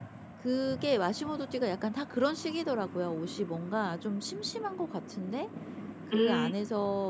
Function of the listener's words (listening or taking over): listening